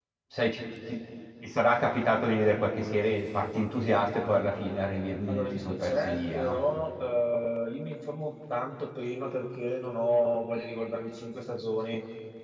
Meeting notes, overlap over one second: present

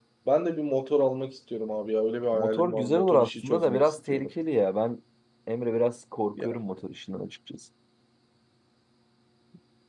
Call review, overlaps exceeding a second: present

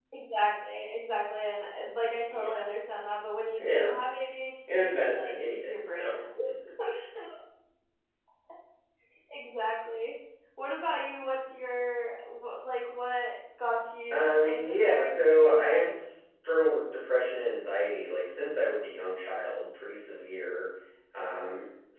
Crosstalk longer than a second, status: present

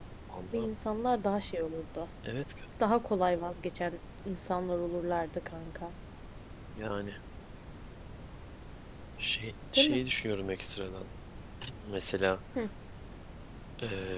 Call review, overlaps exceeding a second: none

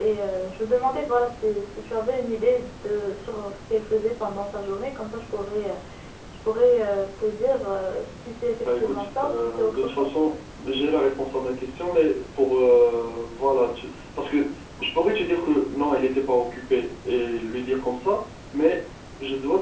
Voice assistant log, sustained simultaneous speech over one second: present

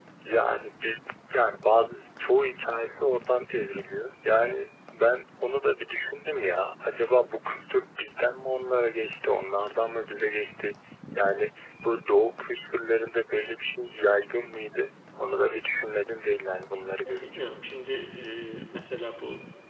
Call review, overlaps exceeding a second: none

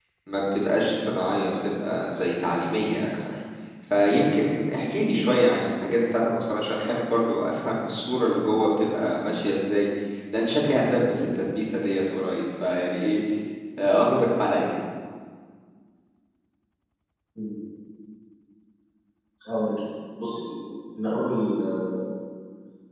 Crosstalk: none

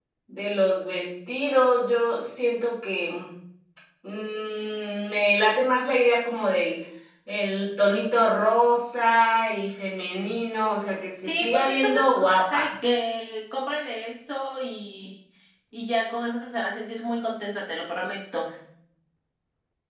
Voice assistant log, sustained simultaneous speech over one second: present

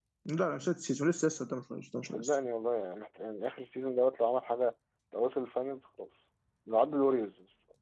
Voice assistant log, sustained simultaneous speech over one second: none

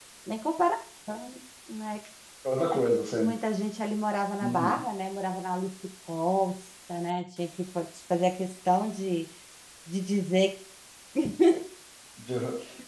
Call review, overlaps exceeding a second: none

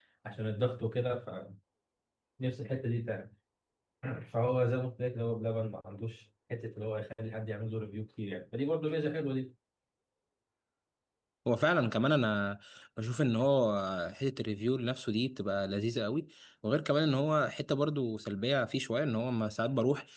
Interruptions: none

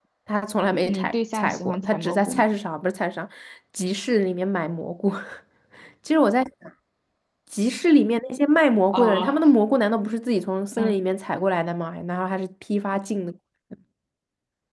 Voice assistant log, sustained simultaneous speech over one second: present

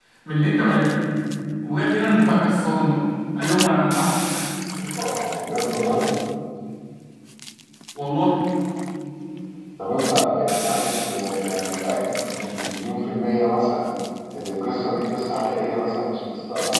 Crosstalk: none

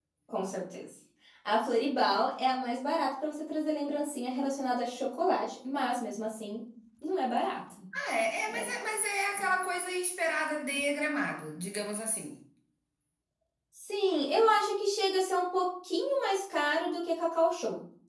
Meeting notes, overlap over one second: none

